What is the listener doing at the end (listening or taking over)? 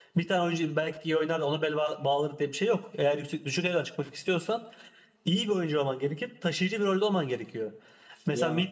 listening